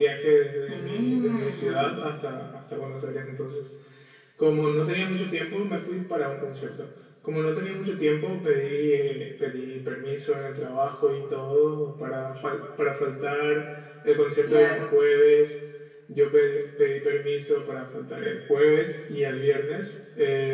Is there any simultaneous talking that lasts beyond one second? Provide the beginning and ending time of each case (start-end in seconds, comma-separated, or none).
0.7-2.0